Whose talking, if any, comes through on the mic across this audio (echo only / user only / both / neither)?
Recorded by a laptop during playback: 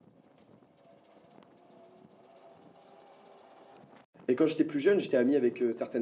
user only